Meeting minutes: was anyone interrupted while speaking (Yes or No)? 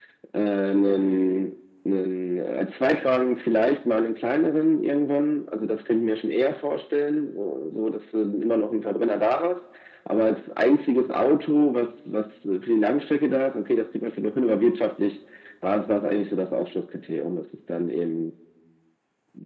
No